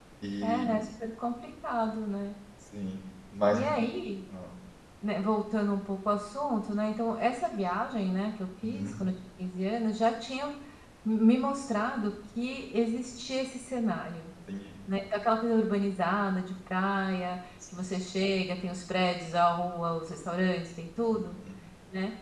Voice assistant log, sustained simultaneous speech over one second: none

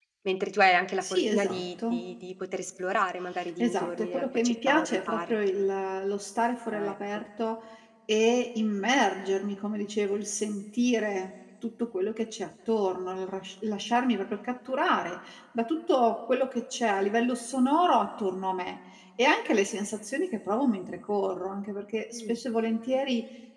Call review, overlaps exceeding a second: present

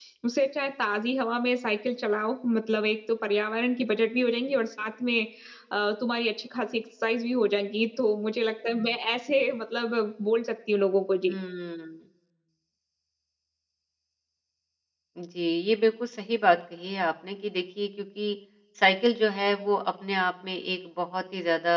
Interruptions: none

